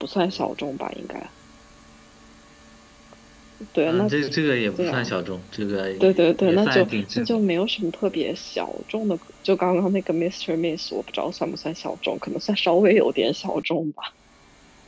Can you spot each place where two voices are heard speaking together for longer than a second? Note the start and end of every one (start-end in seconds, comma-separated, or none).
6.0-7.4